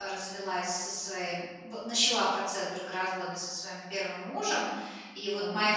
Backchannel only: Yes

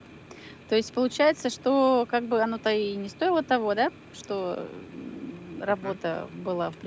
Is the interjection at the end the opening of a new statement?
No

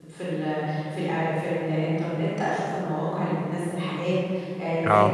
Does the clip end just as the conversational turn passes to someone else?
No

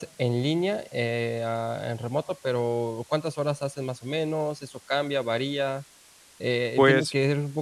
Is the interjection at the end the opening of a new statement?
No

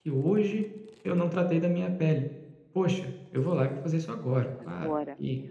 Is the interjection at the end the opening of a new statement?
No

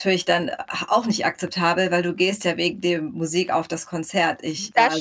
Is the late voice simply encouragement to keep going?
No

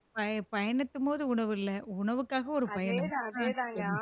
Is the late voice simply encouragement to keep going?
No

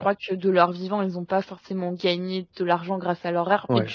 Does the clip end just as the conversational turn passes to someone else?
No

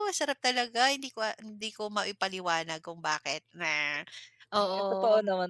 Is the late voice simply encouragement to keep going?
No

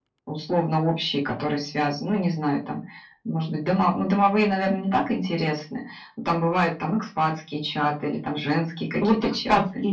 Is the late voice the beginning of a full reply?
Yes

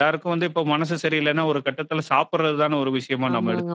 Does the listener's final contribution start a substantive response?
Yes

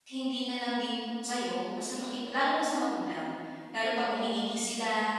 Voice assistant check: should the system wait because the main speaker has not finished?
Yes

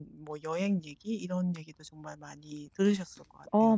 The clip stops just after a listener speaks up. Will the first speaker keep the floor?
No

